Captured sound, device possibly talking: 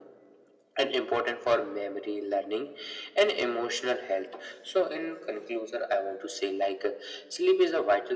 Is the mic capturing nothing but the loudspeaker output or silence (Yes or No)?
Yes